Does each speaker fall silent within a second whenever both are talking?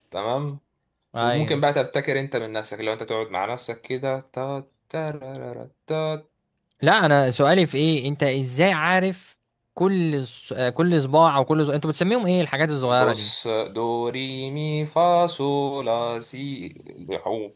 Yes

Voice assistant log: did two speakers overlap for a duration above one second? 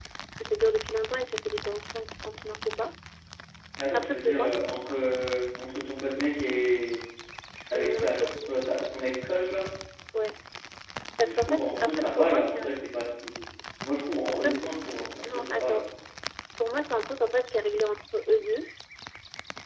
Yes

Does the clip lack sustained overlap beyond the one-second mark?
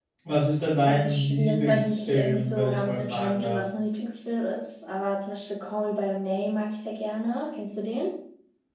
No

